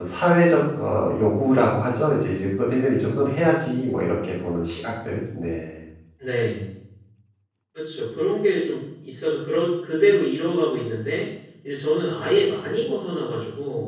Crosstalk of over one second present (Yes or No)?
No